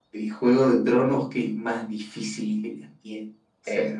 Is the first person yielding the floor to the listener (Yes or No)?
Yes